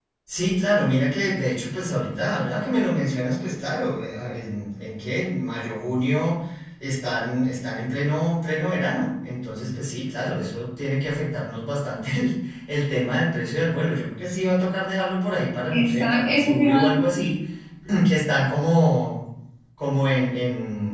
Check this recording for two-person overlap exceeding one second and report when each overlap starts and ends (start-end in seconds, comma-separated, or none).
15.7-17.3